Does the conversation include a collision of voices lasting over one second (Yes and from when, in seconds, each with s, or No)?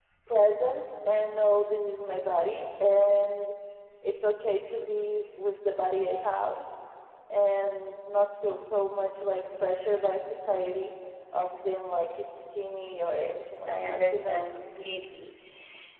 Yes, from 13.0 s